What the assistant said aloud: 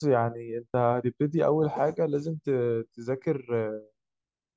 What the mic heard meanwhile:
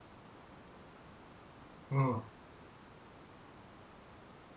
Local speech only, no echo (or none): امم